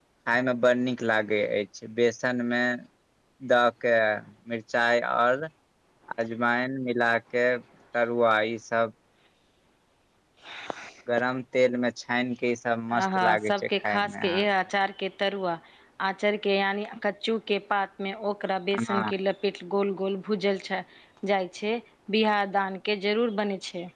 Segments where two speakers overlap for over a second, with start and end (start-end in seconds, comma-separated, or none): 13.0-14.4